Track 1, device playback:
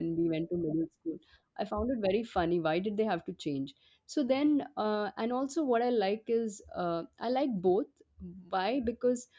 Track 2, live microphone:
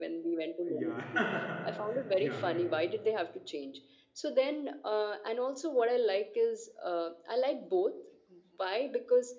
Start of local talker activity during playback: 0.7 s

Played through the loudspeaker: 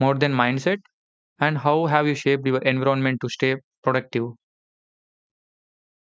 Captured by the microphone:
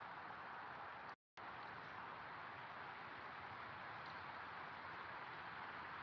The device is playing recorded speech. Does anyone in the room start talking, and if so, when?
none

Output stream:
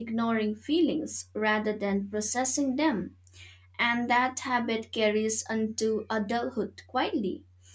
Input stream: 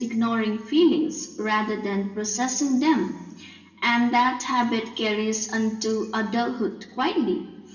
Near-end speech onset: none

